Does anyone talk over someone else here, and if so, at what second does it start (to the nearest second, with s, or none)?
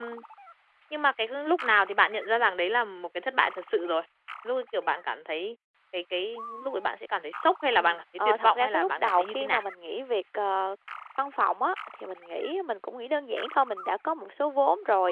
8 s